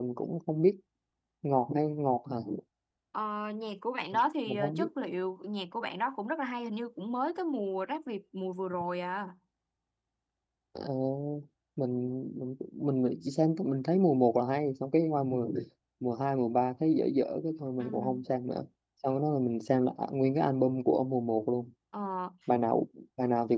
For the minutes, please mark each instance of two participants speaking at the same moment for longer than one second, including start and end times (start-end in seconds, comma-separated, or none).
none